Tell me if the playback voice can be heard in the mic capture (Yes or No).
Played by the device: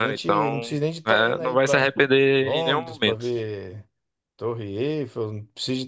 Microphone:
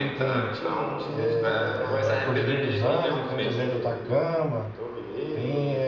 Yes